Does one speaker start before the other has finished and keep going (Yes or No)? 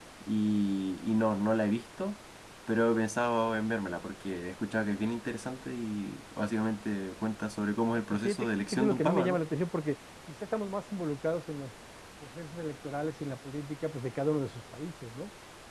Yes